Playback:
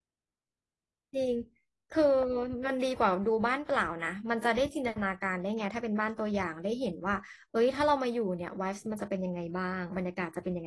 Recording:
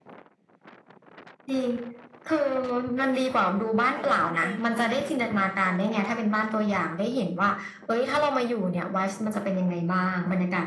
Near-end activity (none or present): present